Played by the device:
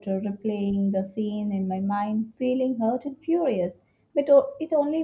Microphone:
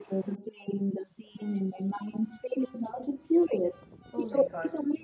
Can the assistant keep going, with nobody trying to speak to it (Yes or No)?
No